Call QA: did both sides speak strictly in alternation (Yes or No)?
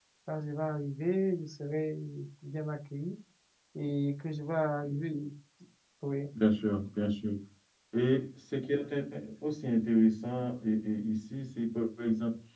Yes